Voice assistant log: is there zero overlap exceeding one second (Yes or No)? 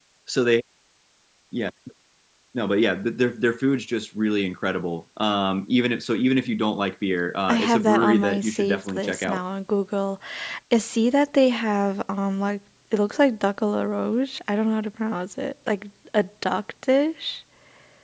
No